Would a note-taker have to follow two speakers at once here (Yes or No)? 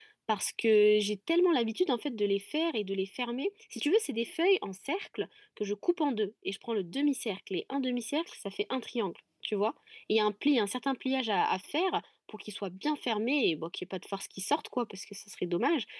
No